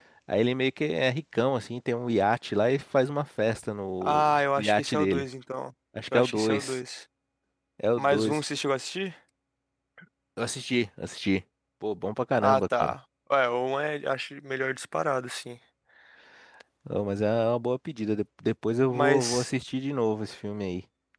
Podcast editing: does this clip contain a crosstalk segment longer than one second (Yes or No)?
Yes